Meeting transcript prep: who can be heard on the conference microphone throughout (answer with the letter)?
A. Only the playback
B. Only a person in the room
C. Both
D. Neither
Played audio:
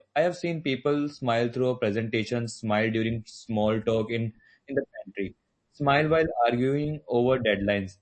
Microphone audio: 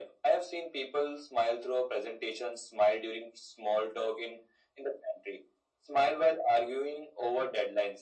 A